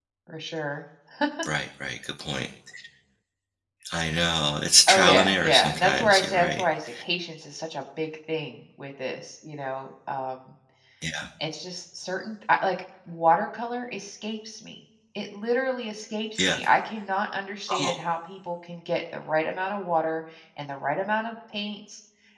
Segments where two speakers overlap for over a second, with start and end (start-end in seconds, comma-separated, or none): 4.9-6.6